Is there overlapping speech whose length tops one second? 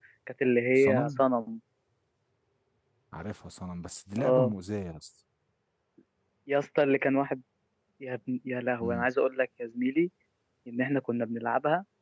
No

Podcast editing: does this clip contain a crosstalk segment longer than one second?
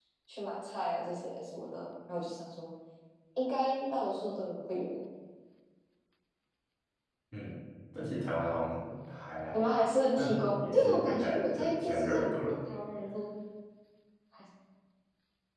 Yes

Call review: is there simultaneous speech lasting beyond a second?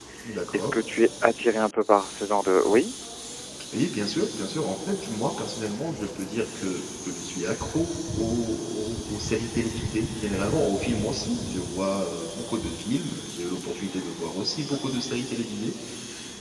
No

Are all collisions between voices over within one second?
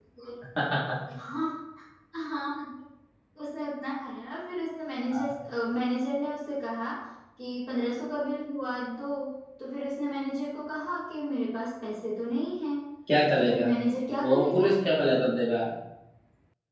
Yes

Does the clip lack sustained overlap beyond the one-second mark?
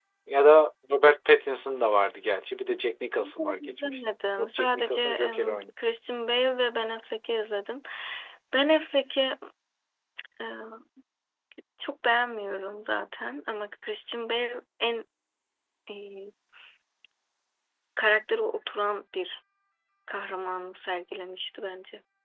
No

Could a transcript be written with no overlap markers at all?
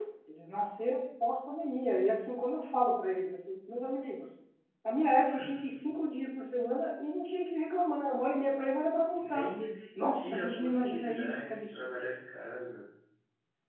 No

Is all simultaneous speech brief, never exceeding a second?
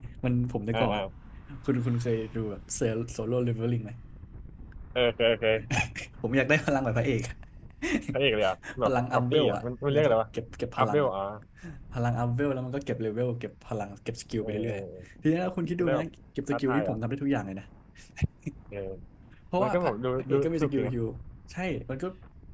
No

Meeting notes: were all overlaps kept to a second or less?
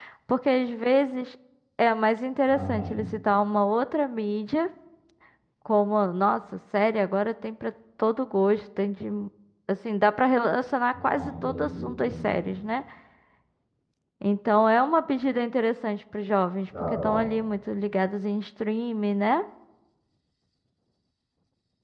No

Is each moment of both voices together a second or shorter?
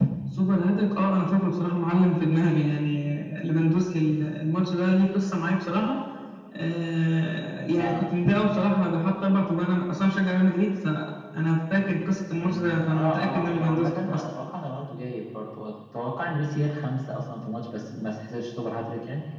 No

